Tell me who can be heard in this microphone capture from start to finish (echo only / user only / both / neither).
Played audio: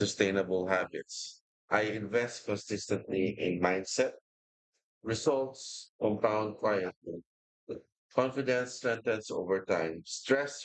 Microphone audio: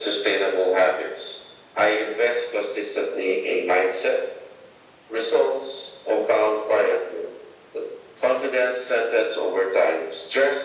echo only